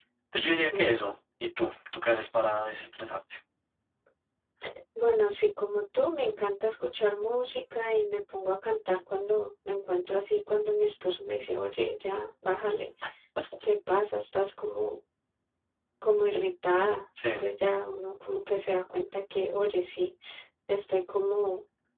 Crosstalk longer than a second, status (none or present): none